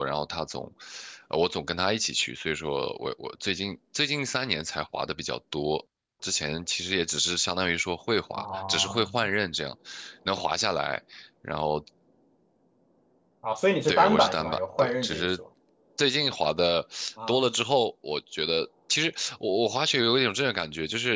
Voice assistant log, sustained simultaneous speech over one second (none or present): present